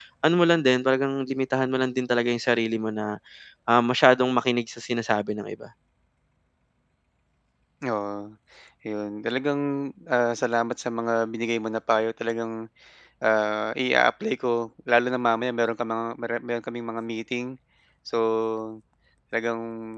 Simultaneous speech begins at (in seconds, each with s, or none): none